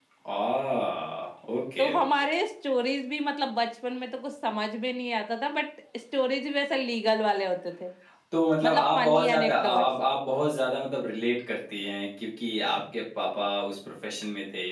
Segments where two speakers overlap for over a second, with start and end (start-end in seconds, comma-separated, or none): 8.6-9.9